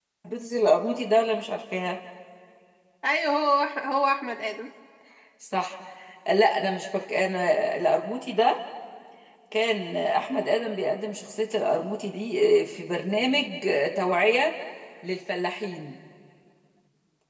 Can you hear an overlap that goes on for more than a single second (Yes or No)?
No